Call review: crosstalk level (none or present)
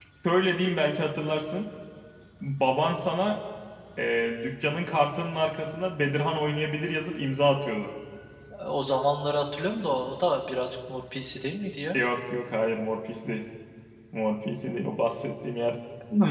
none